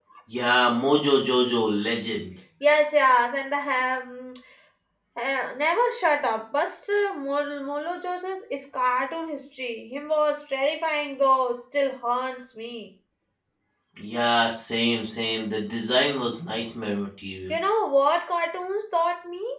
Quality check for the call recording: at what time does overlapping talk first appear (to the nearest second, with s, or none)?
none